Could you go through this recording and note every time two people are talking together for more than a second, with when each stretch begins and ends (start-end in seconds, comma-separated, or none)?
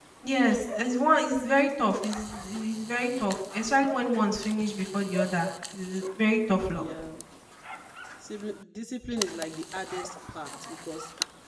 none